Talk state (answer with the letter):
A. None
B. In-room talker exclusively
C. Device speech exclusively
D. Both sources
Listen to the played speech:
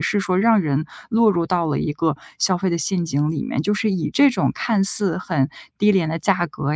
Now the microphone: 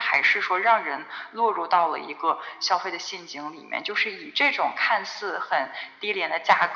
C